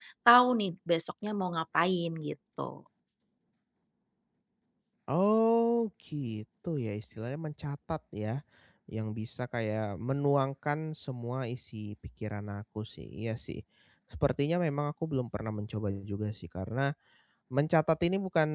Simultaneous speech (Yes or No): No